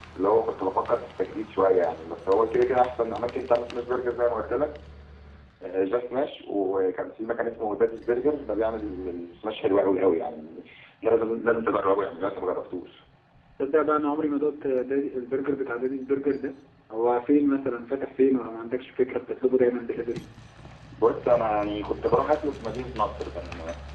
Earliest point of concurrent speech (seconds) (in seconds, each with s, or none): none